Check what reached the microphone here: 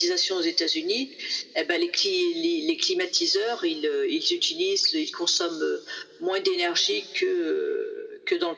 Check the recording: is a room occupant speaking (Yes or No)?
No